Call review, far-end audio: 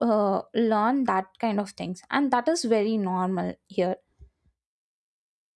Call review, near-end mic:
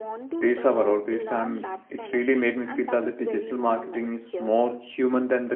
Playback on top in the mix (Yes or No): No